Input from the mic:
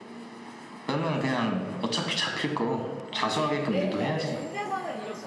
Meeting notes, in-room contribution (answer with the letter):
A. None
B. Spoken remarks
B